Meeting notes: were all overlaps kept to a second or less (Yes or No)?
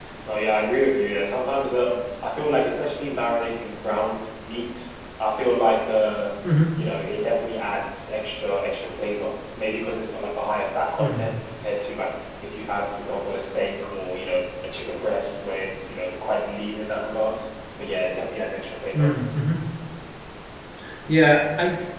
Yes